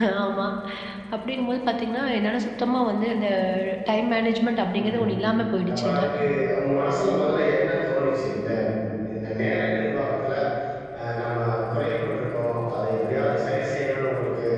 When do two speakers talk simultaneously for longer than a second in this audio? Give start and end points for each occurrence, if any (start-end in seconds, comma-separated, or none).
none